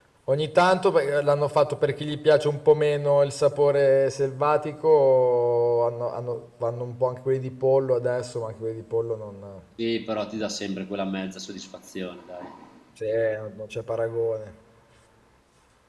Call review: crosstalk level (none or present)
none